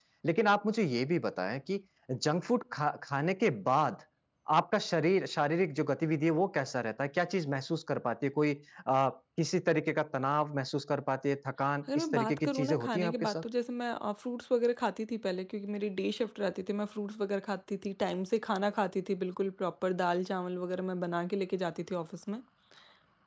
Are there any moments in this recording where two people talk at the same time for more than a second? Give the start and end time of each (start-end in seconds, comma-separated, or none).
11.9-13.4